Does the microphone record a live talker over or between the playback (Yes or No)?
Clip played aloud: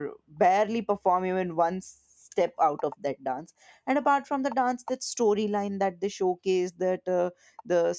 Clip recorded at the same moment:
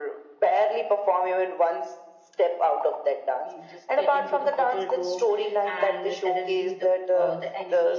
Yes